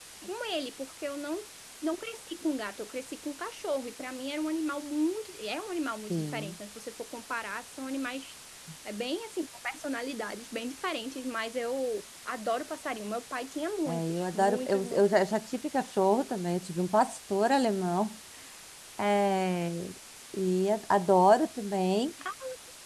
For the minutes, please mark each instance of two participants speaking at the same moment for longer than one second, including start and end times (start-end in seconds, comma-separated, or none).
13.9-15.3